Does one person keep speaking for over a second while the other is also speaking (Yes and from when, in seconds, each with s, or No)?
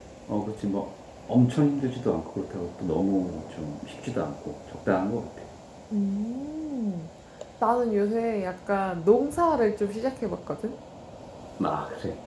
No